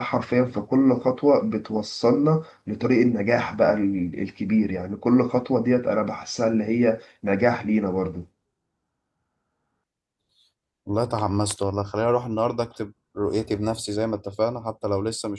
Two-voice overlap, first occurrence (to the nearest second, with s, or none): none